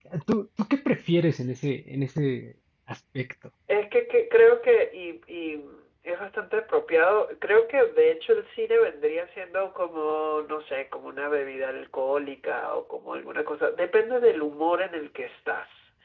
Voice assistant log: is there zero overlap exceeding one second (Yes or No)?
Yes